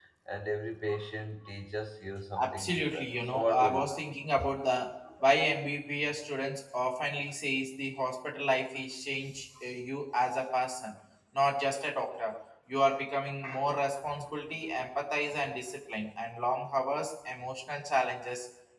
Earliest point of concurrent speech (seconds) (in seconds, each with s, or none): 2.4 s